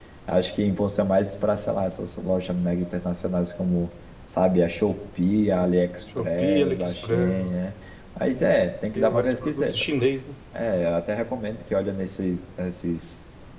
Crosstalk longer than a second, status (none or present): present